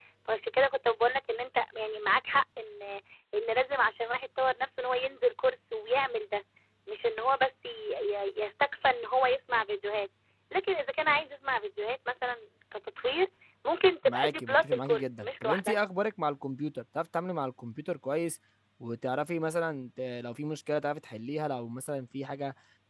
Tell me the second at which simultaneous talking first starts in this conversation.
14 s

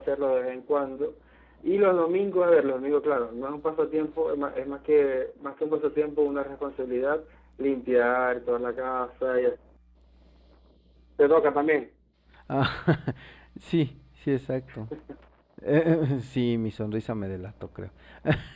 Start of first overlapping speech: none

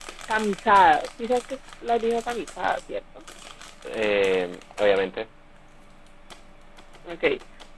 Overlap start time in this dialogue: none

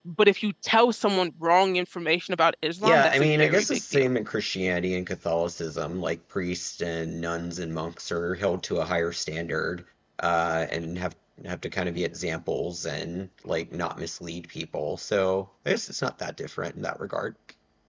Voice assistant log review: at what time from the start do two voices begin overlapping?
3 s

